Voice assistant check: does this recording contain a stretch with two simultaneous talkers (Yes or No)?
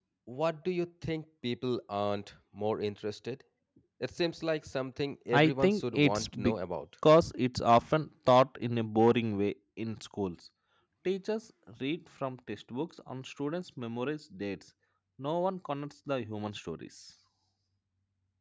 Yes